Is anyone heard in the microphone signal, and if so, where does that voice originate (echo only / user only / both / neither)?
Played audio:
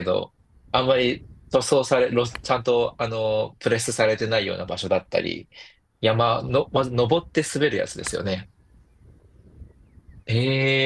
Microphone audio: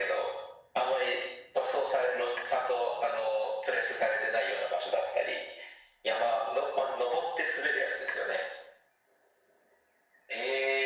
echo only